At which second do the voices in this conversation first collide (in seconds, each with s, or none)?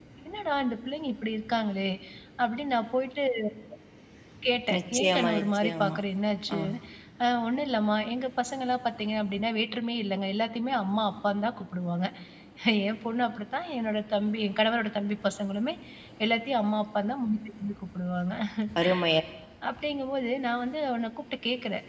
4.7 s